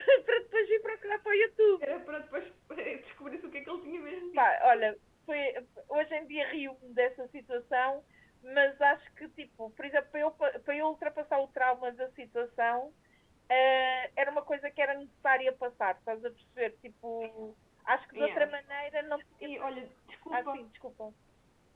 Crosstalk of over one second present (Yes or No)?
No